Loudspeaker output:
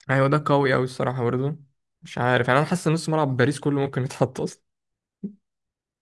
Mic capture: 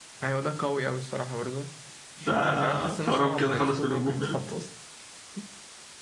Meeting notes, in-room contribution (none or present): present